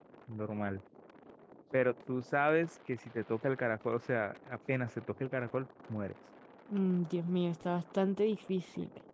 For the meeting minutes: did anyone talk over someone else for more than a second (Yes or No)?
No